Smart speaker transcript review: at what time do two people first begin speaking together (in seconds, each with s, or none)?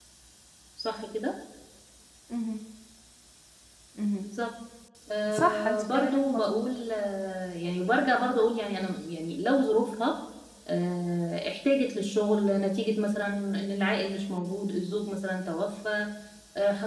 5.3 s